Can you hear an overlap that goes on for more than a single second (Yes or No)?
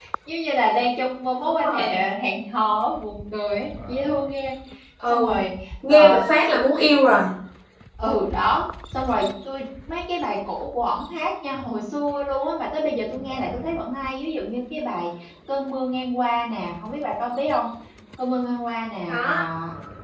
No